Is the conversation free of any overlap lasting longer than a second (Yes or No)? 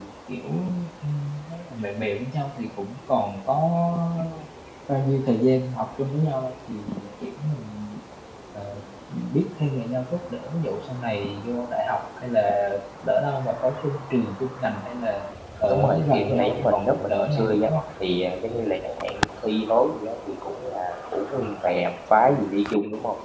No